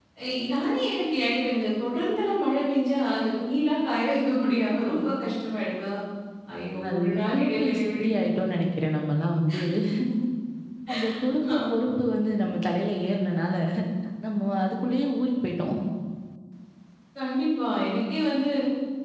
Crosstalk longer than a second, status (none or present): present